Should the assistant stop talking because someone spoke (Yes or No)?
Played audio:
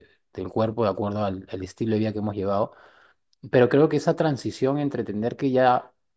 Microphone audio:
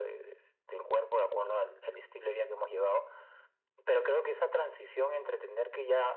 No